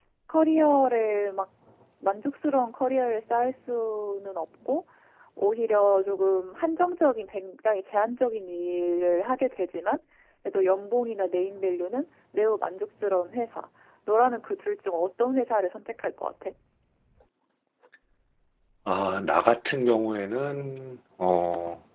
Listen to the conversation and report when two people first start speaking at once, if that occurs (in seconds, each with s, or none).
none